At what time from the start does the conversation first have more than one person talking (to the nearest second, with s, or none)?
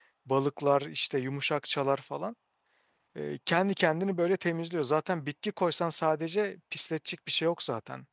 none